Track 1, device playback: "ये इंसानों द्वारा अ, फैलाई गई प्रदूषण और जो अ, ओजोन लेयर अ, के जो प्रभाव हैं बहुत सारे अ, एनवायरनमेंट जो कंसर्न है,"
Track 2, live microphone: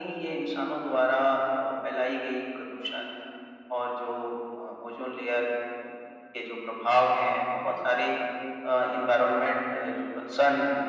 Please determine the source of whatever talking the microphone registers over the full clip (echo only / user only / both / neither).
echo only